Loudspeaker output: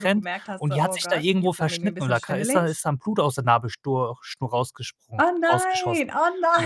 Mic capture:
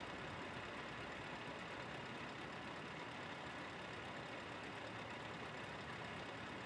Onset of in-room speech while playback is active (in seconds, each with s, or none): none